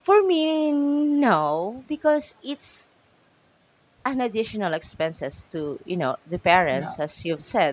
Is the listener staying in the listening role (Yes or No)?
Yes